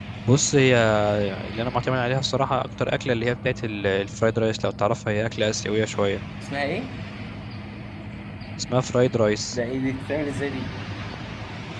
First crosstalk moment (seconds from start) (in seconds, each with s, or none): none